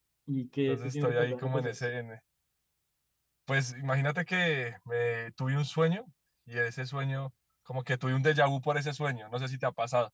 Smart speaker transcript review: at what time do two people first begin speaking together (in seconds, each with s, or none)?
0.7 s